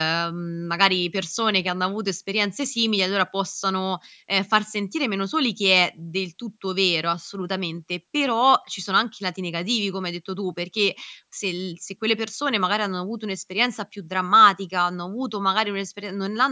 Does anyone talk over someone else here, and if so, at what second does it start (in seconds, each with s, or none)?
none